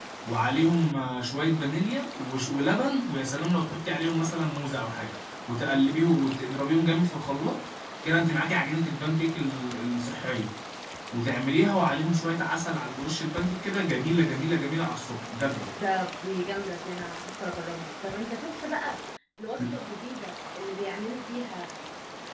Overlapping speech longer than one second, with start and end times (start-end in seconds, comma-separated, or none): none